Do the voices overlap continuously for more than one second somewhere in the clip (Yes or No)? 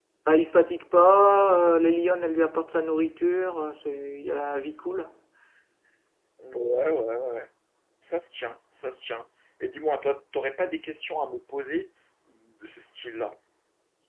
No